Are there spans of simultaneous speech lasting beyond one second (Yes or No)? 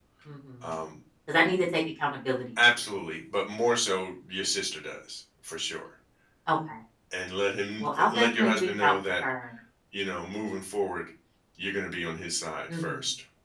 Yes